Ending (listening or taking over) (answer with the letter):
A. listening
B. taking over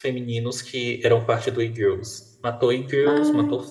A